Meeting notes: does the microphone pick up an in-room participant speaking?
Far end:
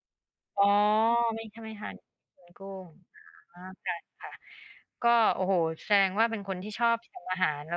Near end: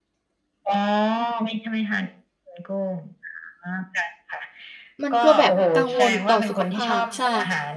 Yes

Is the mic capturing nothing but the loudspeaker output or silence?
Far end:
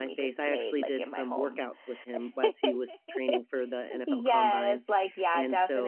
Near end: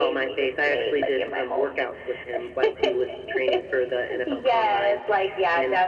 Yes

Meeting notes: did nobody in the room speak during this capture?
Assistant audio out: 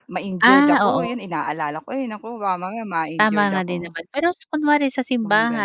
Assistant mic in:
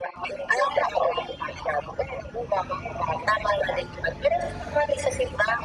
Yes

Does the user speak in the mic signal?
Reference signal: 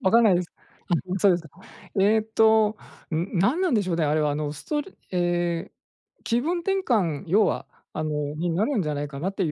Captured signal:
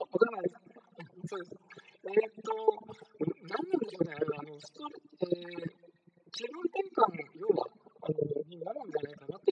No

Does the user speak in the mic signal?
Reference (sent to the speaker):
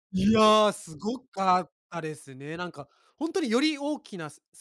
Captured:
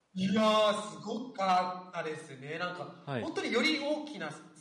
Yes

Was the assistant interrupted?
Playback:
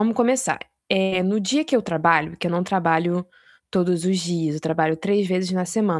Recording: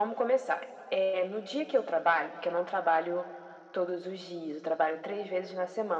No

